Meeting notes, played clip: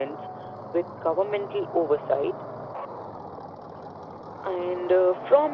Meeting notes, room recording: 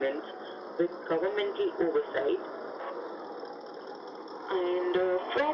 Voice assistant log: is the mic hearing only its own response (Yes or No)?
Yes